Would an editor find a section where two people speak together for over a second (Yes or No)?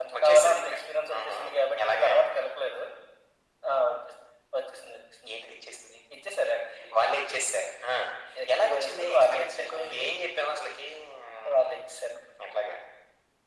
Yes